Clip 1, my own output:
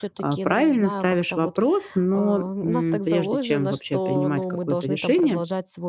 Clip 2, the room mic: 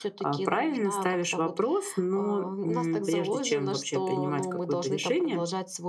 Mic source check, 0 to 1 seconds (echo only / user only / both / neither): echo only